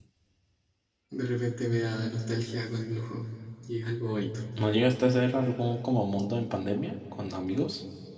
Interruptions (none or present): none